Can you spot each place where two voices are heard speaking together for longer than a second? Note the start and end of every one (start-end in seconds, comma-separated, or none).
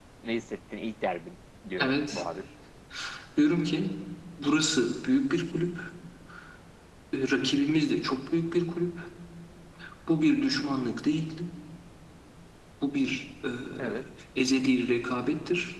none